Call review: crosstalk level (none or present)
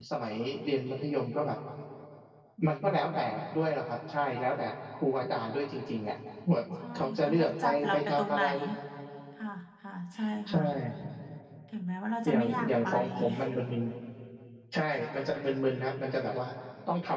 present